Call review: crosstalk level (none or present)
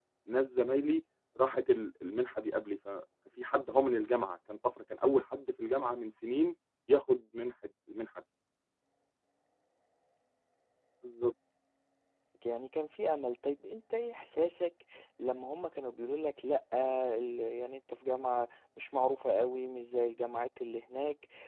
none